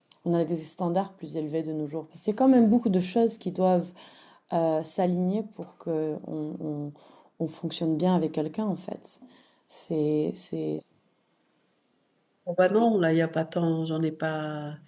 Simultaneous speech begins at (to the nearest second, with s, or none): none